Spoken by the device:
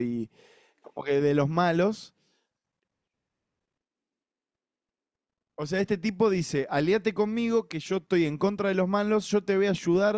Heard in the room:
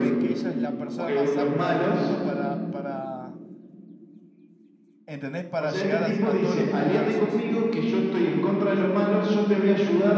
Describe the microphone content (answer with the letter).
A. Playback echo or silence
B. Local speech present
B